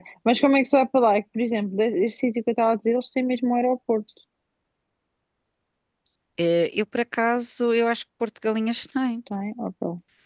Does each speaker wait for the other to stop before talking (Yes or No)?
Yes